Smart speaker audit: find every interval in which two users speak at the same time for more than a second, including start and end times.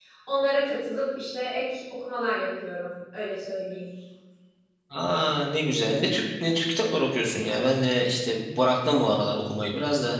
none

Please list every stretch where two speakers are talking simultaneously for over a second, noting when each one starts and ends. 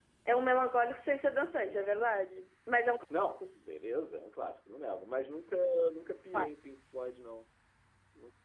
none

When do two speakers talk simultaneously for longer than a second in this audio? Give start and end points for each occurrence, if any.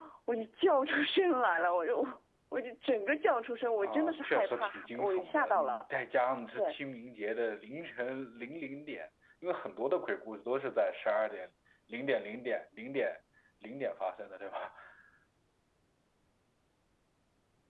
3.8-5.8

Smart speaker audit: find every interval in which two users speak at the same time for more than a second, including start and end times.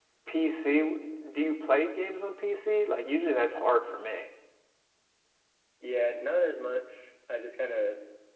none

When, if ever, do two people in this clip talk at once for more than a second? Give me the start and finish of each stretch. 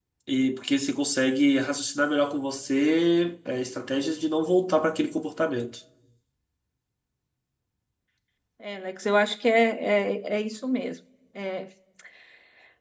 none

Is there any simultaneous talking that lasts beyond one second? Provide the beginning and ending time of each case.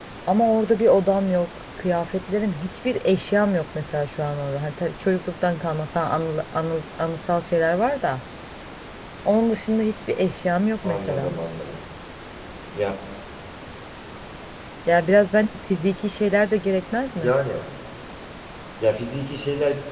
none

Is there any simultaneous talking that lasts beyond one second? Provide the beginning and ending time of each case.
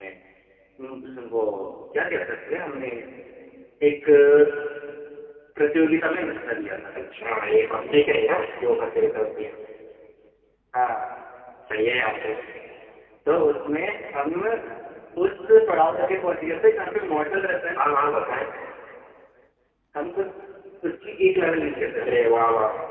none

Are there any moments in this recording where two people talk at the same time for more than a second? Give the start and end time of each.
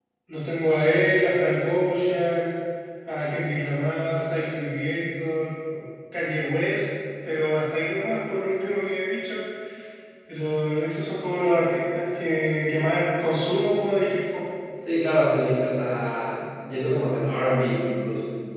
none

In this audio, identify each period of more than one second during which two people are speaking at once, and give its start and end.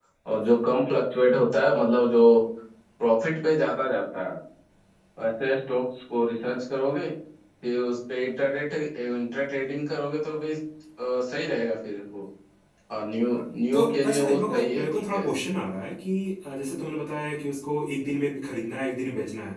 13.7-15.2

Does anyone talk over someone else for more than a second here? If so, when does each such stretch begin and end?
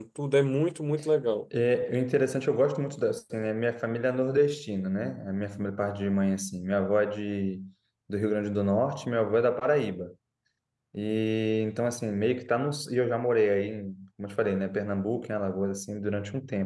none

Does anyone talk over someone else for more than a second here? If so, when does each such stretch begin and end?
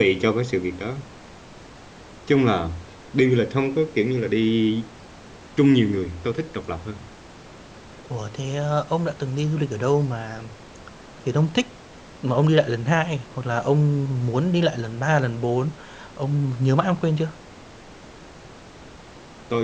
none

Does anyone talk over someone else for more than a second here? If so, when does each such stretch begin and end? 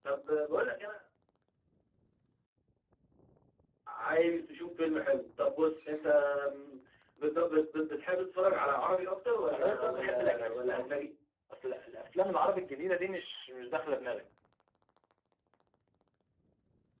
9.5-10.9

